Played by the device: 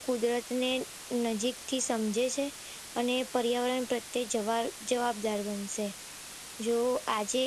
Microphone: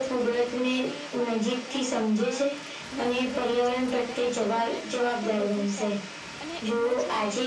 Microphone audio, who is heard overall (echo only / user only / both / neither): both